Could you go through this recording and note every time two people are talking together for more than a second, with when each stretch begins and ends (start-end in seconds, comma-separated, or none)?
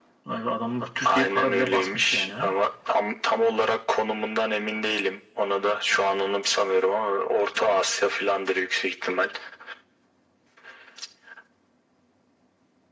1.0-2.4